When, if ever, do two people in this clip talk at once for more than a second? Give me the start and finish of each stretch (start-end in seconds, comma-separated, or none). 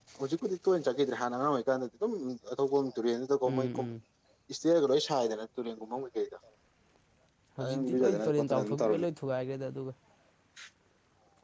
7.6-9.0